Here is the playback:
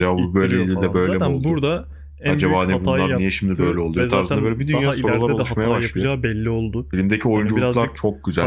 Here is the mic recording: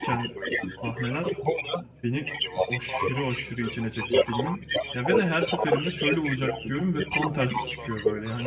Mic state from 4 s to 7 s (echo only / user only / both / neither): both